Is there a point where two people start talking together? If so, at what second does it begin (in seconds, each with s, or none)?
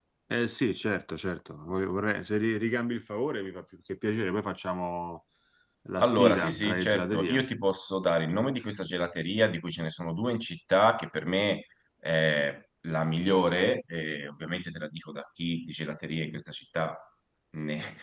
6.0 s